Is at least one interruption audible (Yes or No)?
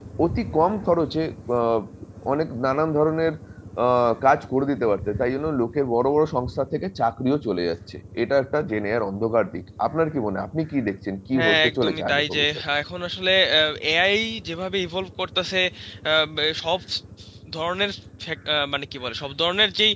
Yes